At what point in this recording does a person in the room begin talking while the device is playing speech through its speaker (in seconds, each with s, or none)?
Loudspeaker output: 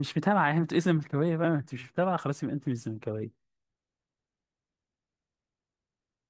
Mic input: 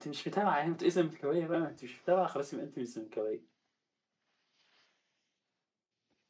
none